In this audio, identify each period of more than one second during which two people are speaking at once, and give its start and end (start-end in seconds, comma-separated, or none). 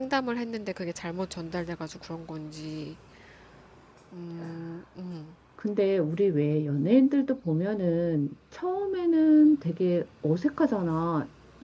none